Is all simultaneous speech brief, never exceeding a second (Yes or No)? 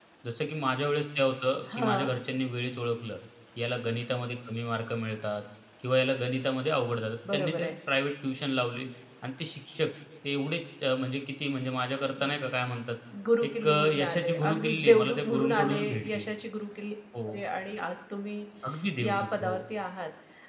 No